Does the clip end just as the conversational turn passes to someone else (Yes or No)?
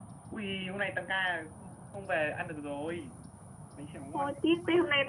Yes